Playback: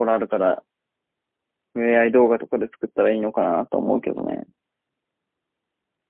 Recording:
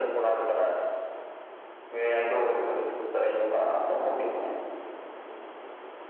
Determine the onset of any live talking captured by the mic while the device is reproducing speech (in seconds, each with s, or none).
none